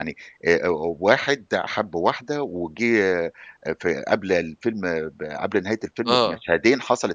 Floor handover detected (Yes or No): No